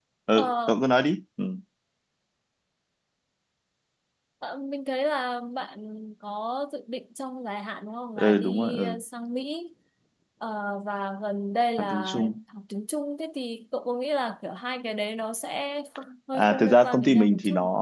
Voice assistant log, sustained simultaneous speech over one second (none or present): present